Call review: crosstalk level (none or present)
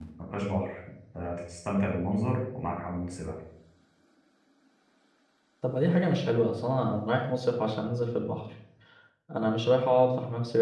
none